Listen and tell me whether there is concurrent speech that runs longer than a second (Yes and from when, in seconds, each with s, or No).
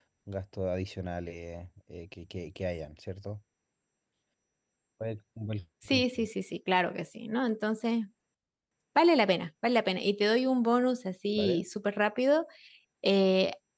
No